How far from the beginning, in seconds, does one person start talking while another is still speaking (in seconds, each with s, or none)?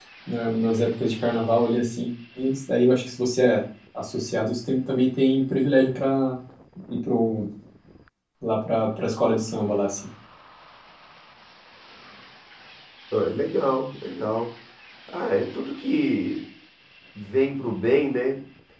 none